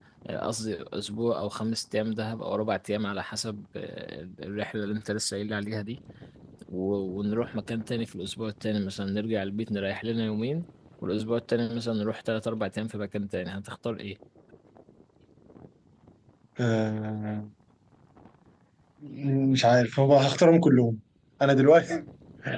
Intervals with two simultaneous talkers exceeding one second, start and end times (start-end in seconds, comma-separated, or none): none